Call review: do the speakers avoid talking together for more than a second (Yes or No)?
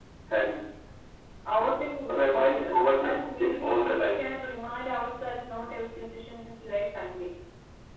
No